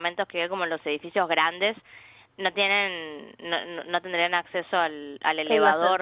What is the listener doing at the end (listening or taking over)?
listening